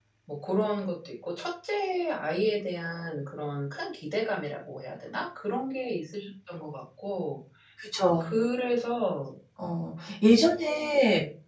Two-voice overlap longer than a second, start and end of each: none

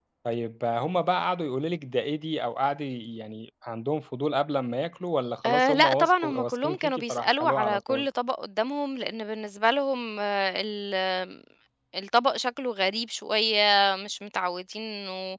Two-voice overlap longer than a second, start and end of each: 5.5-8.1

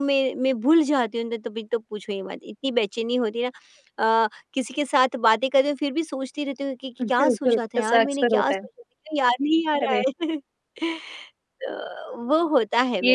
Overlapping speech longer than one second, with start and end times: 7.1-8.6

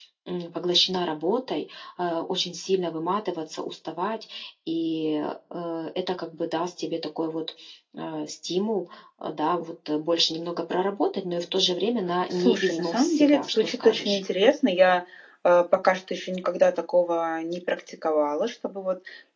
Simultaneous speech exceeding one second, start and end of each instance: 12.3-14.2

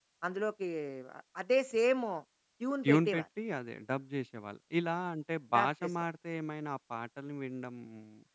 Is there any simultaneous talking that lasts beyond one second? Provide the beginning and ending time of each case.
none

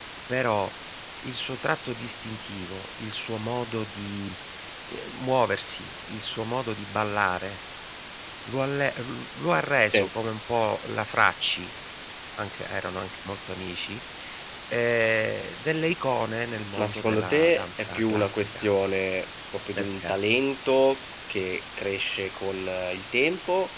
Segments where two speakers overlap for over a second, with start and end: 16.8-18.7

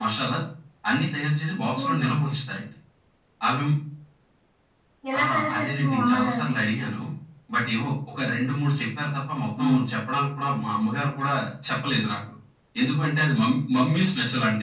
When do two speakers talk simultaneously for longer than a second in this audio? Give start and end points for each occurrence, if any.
5.2-6.5

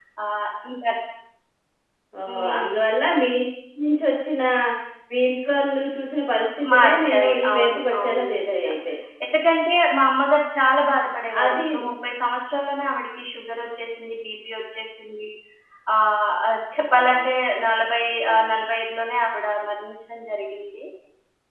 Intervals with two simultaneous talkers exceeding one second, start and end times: 6.7-8.7

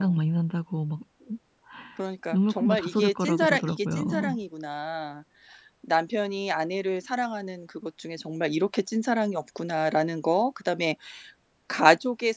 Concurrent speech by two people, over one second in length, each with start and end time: 2.3-4.4

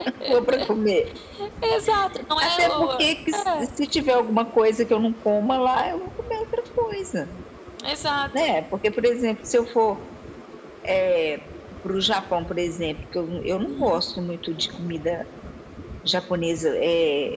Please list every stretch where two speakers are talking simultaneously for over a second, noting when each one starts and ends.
2.4-3.7

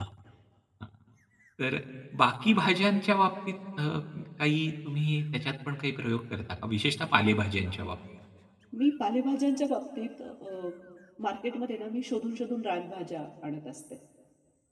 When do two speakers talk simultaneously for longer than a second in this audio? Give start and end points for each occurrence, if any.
none

